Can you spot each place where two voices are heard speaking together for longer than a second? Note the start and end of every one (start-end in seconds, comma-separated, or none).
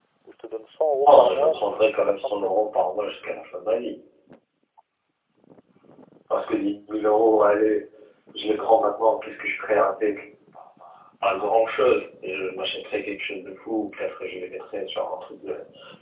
1.1-2.6